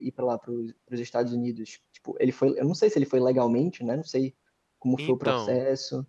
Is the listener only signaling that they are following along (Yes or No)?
No